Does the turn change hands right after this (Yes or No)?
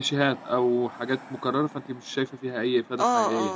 Yes